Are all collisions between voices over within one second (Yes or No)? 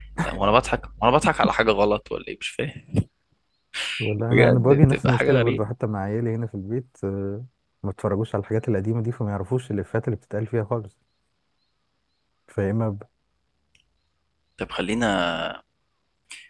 No